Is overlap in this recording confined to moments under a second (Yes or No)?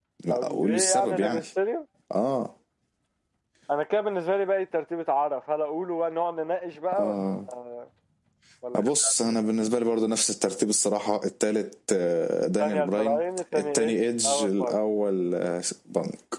No